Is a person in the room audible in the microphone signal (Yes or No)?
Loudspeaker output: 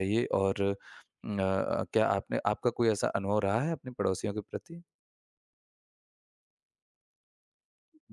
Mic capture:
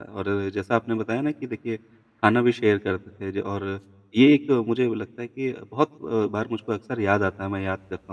Yes